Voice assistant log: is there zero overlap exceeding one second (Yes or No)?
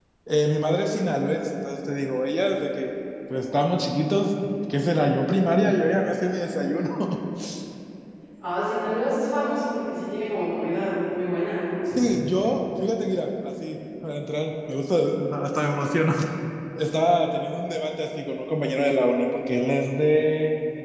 Yes